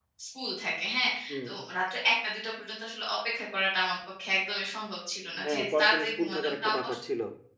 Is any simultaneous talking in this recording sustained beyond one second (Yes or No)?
Yes